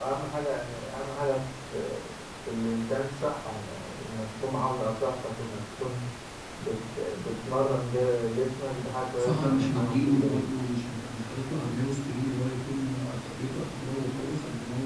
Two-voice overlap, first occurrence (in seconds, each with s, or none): 9.1 s